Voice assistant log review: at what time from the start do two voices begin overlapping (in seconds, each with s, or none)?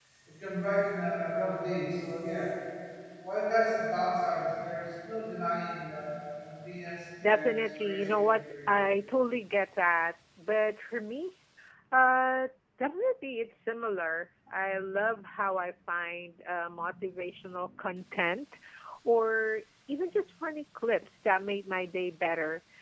7.2 s